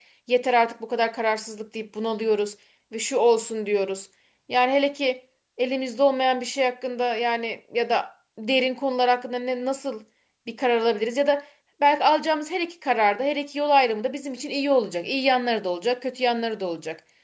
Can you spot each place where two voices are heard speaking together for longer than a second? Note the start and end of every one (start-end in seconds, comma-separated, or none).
none